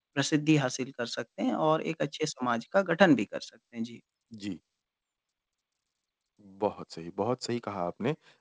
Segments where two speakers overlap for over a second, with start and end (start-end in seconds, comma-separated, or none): none